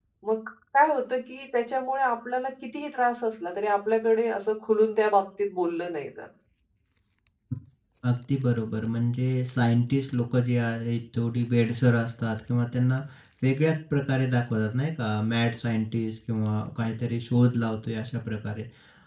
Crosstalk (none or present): none